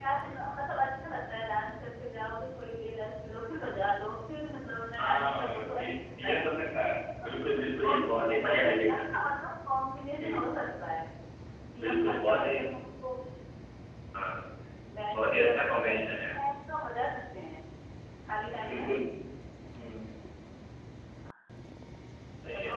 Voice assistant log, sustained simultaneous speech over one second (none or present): present